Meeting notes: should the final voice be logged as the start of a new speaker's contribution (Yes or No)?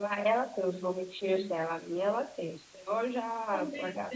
Yes